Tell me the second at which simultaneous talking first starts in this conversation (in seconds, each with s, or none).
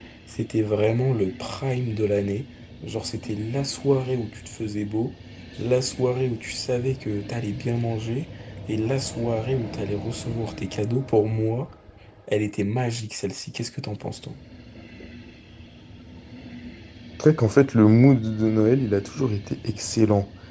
none